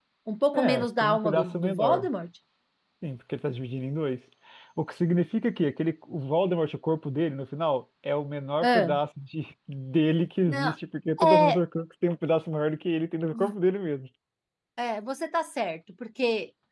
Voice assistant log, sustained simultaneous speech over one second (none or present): present